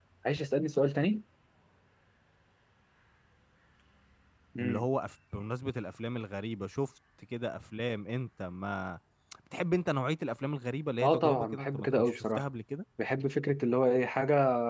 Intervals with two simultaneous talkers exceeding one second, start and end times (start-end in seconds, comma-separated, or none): 11.0-12.4